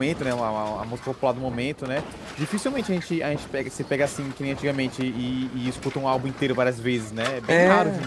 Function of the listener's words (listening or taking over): taking over